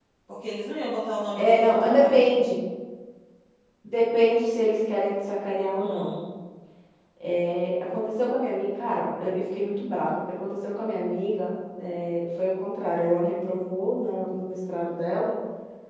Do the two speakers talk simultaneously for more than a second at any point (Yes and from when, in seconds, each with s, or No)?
Yes, from 1.4 s